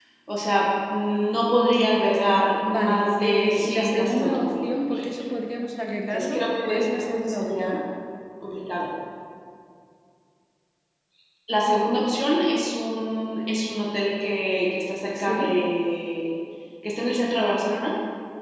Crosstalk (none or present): present